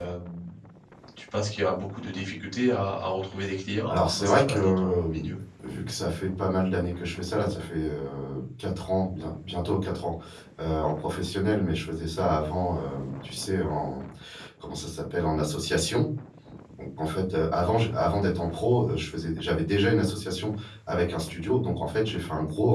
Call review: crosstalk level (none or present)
present